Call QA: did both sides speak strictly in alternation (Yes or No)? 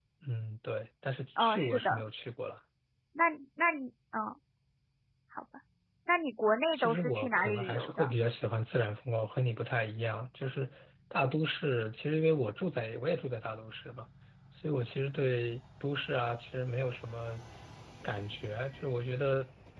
No